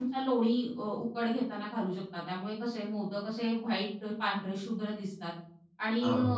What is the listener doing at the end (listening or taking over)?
listening